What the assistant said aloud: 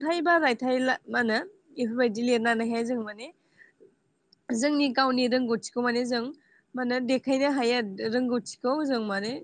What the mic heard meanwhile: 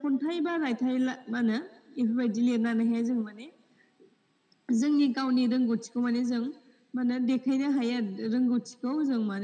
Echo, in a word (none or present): present